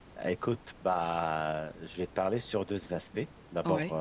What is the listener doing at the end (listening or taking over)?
listening